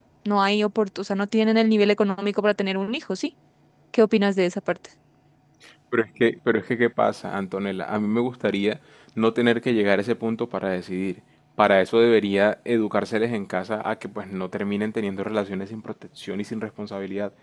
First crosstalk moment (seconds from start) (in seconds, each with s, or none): none